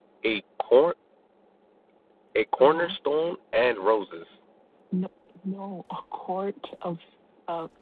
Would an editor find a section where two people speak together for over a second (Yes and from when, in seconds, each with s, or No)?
No